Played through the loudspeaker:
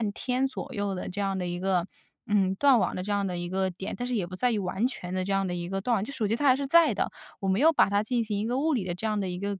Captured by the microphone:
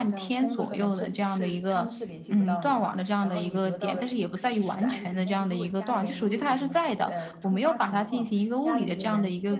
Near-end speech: present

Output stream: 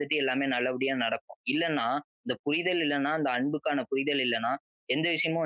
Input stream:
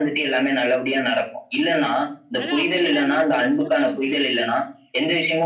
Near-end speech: present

